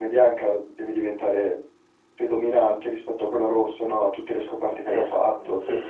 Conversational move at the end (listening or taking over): taking over